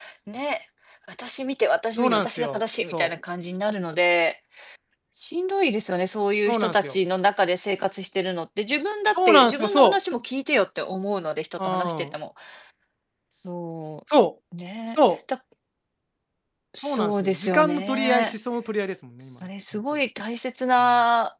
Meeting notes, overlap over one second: present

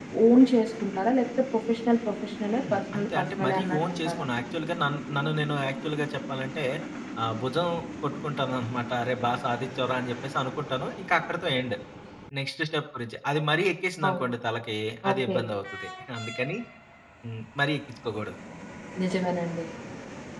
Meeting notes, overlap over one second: present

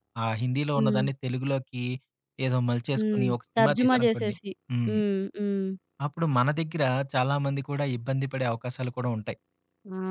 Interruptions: present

